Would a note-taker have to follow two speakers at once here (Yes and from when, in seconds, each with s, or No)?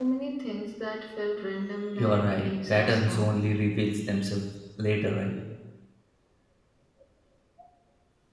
Yes, from 2.0 s